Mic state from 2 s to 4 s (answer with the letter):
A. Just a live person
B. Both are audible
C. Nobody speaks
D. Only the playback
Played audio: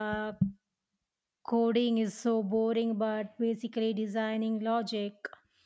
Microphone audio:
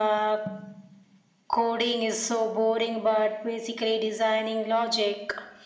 D